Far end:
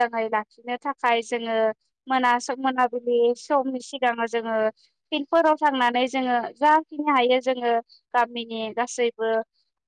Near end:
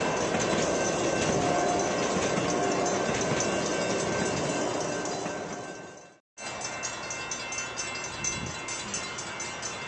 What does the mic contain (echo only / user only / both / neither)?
neither